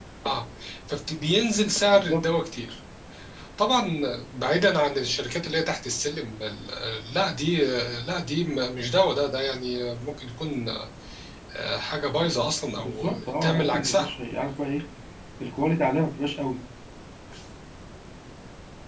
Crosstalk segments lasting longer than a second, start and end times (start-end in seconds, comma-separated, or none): 12.8-14.1